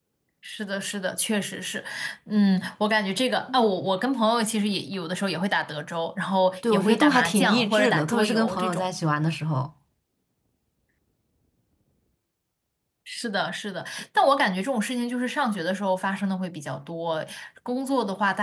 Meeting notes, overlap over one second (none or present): present